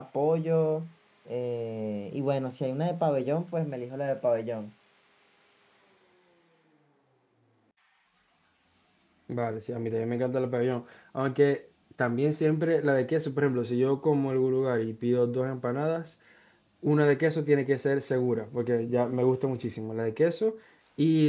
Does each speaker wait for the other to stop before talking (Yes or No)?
Yes